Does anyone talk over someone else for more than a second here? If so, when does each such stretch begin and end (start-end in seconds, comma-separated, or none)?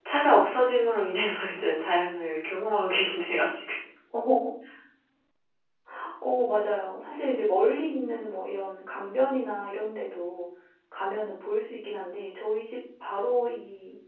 none